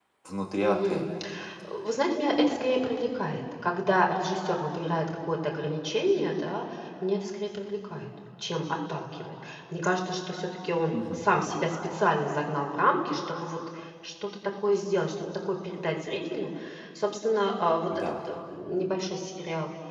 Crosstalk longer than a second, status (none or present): none